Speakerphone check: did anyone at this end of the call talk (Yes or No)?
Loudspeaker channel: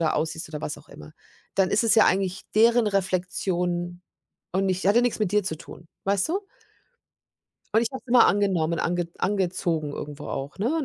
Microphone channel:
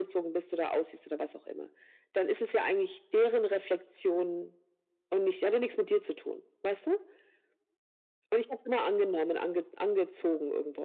No